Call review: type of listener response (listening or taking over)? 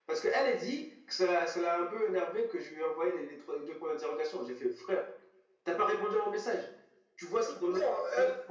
taking over